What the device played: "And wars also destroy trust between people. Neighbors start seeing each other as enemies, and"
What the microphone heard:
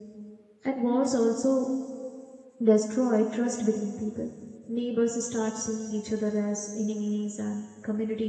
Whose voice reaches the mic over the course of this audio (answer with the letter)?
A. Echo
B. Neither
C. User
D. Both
A